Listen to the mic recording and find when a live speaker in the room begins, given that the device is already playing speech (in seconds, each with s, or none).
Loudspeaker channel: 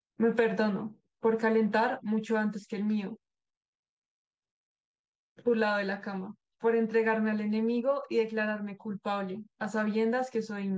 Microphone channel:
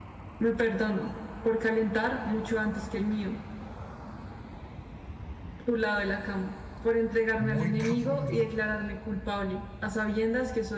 7.4 s